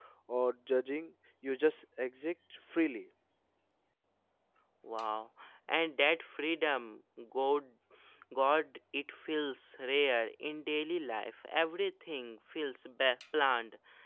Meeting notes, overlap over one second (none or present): none